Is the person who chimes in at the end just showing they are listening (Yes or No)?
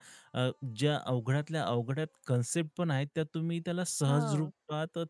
Yes